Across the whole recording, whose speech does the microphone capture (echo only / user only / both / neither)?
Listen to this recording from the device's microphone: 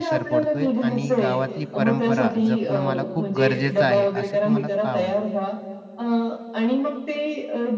both